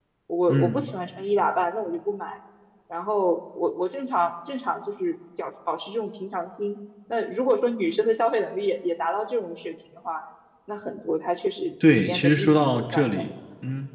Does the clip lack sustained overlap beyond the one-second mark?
No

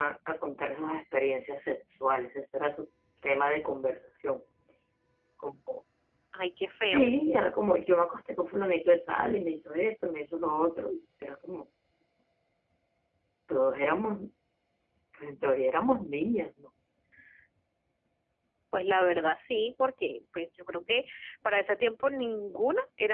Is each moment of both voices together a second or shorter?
Yes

